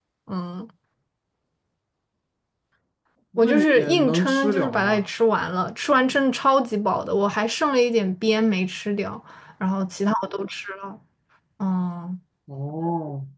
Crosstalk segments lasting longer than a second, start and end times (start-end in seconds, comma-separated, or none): 3.4-5.1